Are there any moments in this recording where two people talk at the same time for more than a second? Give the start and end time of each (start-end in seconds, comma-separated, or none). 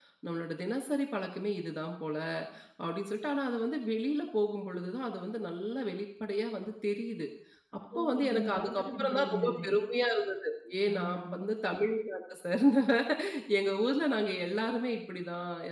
8.0-9.6